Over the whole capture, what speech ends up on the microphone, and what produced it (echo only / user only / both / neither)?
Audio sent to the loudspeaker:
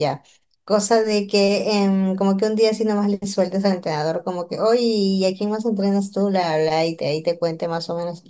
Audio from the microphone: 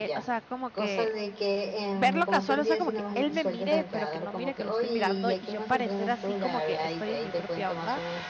both